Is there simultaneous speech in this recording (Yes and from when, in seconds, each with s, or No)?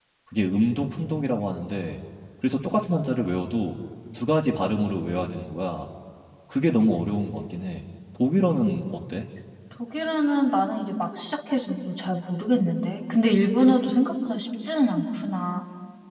No